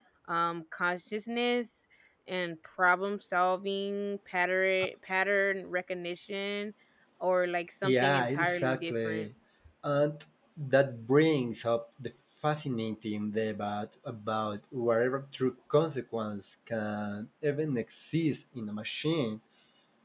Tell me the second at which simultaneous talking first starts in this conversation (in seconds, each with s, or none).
7.8 s